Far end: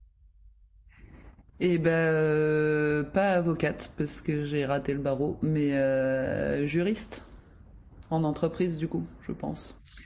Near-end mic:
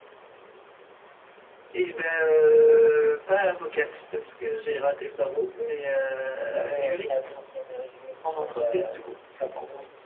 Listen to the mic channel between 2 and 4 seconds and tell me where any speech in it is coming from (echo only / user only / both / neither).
echo only